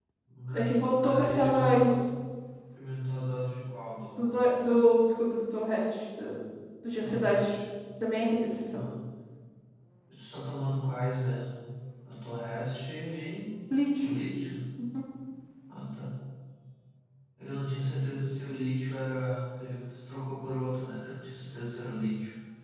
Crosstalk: present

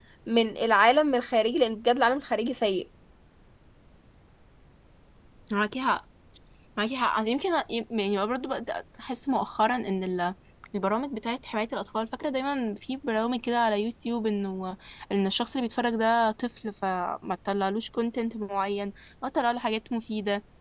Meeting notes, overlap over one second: none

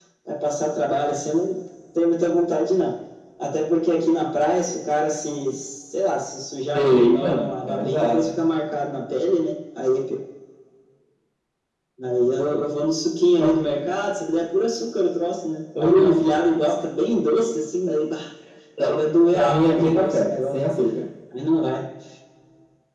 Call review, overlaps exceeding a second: present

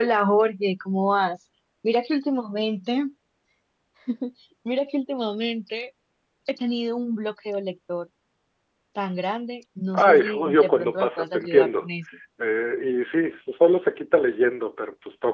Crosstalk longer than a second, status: present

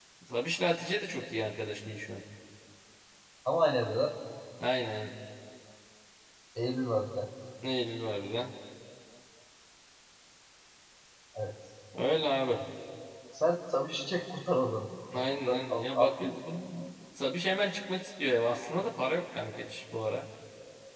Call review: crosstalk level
present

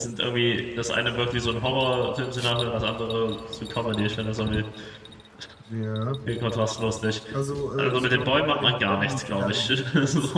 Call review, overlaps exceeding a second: present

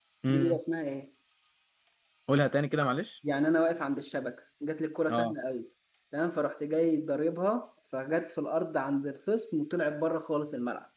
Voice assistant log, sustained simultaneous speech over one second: none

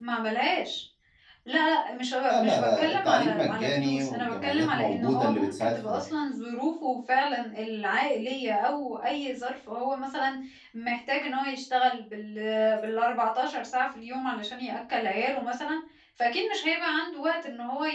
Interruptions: present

